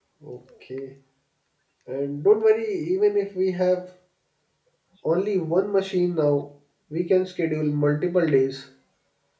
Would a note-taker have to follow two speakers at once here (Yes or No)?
No